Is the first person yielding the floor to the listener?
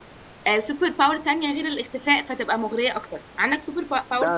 Yes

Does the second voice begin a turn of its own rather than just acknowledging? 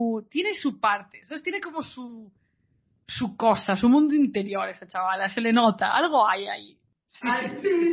Yes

